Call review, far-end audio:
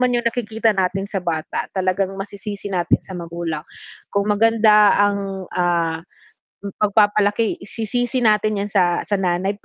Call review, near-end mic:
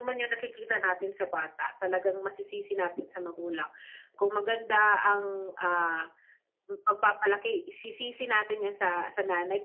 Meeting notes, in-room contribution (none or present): none